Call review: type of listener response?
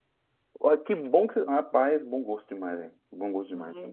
taking over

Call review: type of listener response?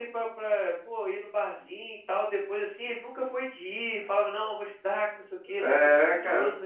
taking over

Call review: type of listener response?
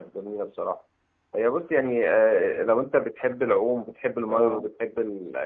listening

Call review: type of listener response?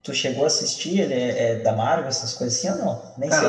taking over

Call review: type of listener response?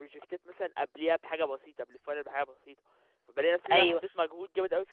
listening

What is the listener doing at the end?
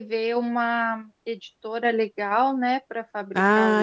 taking over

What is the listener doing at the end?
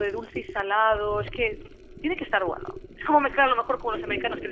listening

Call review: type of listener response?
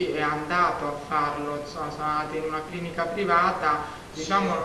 listening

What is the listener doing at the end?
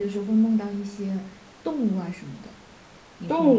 taking over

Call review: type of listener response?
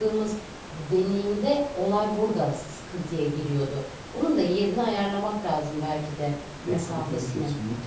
taking over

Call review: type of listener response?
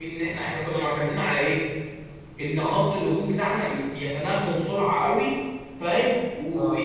listening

